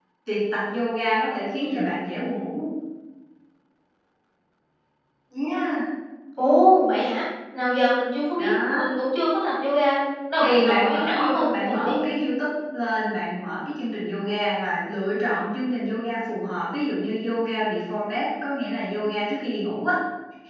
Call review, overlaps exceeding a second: present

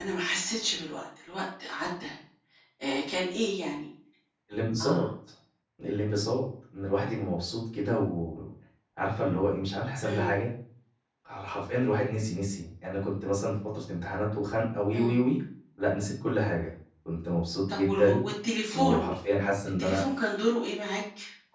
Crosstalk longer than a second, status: none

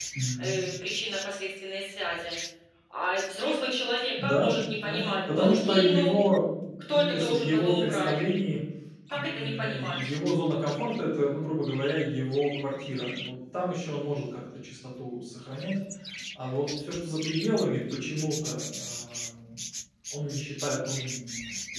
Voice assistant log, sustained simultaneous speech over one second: present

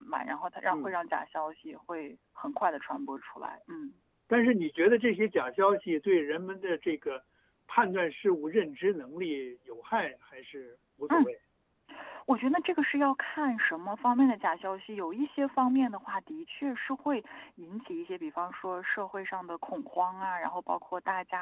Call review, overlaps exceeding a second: none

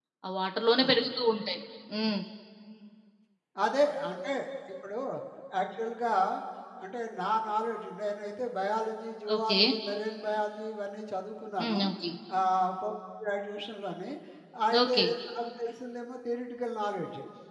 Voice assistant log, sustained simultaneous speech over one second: none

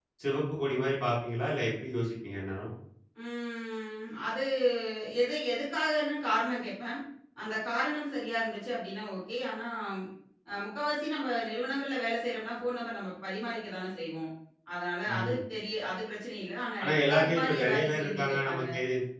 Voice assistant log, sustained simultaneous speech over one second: present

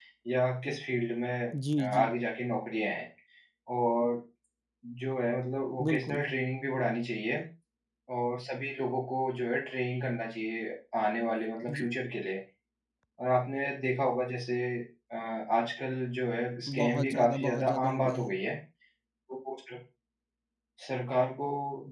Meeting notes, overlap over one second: present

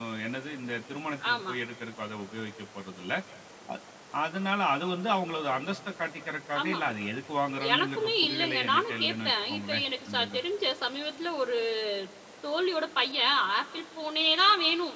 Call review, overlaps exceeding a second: present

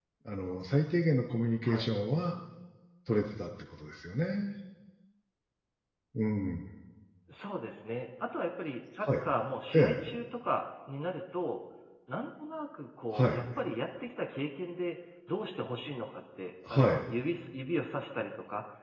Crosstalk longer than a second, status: none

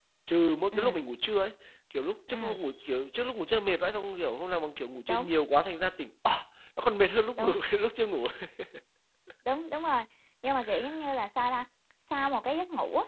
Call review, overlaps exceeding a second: none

